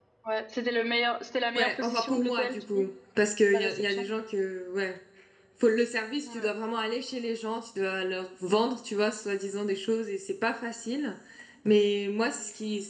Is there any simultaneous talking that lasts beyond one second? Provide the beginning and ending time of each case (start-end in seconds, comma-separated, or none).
1.5-2.9